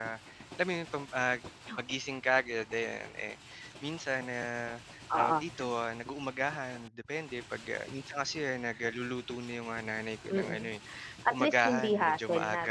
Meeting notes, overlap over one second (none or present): present